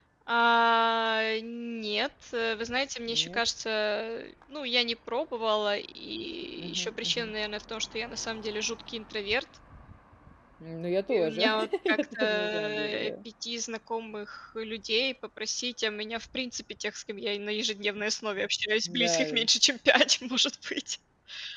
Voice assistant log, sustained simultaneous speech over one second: present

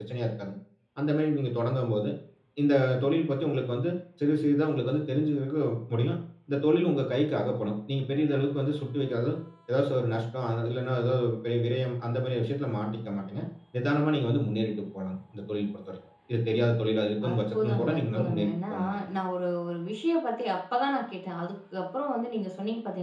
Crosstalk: present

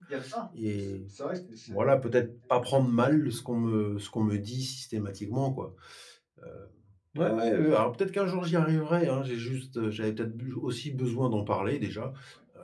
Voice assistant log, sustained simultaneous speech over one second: none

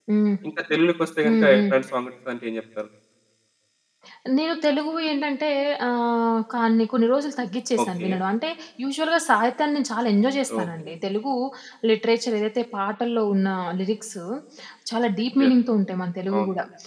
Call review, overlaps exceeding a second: none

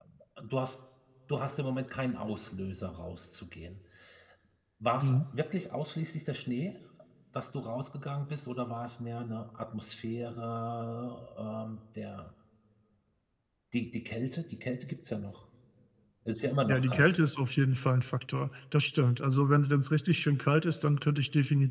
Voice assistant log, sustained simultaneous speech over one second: none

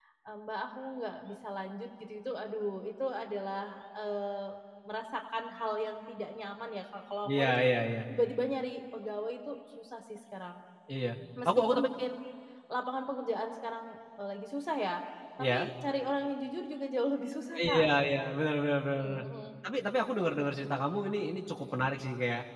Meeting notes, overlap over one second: none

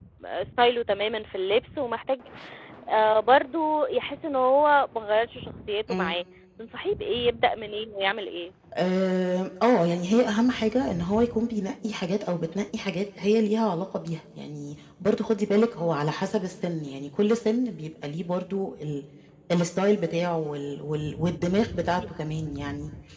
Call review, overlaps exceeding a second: none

